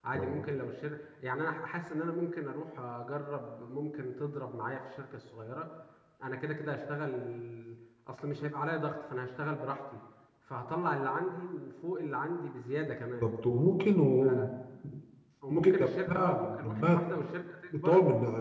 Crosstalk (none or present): present